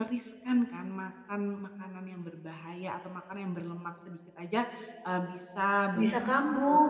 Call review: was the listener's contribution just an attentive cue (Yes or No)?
Yes